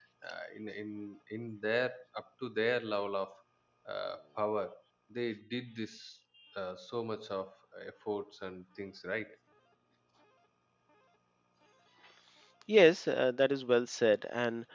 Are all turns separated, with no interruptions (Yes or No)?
Yes